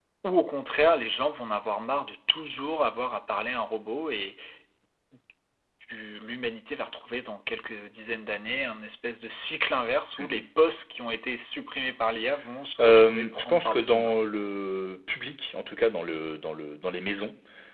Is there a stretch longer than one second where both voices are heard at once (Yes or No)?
Yes